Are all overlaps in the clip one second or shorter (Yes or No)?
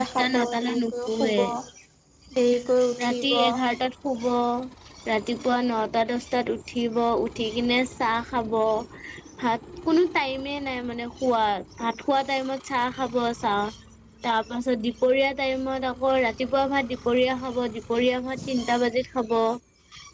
No